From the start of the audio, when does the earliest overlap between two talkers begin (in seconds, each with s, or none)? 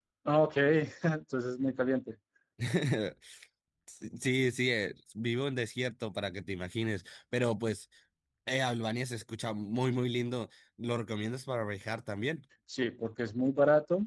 none